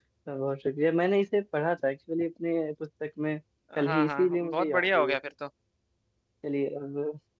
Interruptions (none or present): present